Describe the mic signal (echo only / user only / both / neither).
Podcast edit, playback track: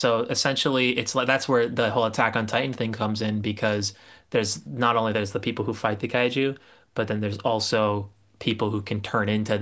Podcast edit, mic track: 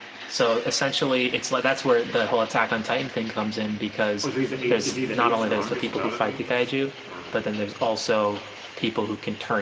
both